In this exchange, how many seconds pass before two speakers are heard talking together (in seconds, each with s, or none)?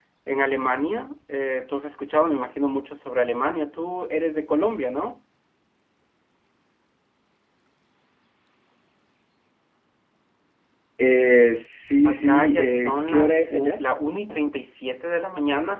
12.0 s